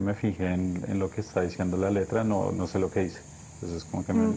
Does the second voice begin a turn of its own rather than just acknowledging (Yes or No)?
Yes